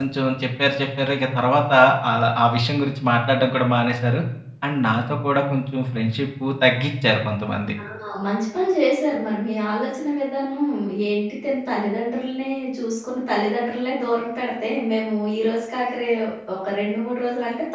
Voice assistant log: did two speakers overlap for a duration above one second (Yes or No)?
No